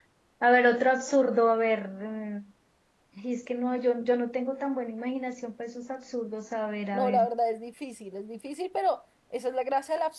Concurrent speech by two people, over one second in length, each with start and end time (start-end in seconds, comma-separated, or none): none